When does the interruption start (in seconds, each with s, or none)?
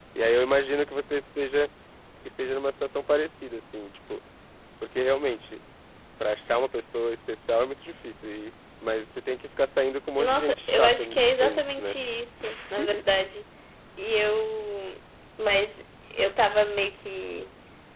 10.2 s